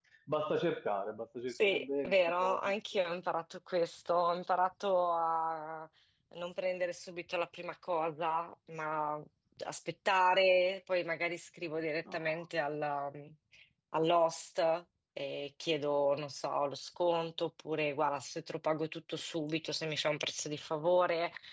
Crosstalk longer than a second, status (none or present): present